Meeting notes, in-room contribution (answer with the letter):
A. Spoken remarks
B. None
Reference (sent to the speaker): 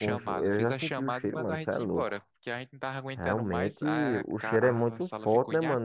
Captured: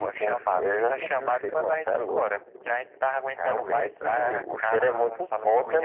B